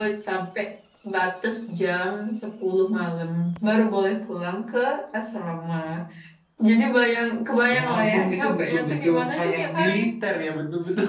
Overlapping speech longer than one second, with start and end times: 7.7-9.9

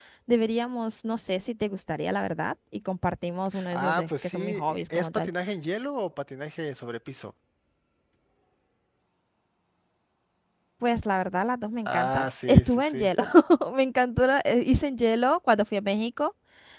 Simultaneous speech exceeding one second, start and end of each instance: 3.7-5.3, 11.9-13.1

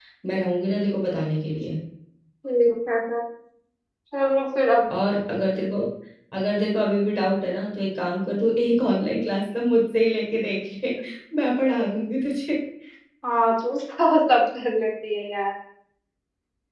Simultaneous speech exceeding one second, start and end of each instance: none

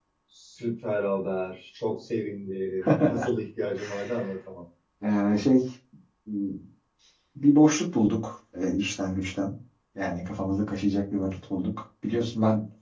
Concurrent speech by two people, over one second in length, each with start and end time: none

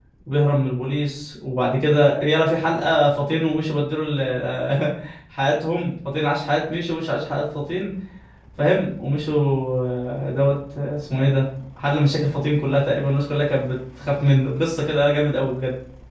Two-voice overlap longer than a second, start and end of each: none

